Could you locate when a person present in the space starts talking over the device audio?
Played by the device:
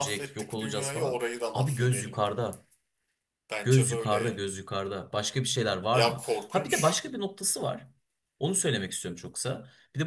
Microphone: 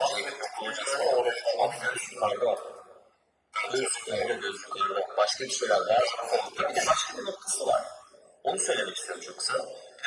none

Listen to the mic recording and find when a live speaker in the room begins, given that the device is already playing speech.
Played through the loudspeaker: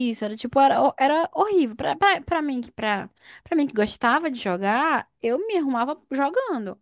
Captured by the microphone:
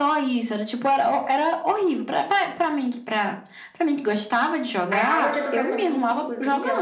4.9 s

